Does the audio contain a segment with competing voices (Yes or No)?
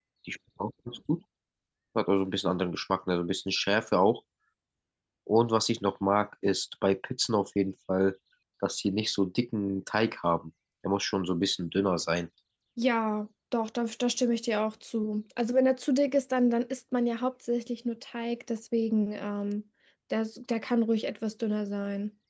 No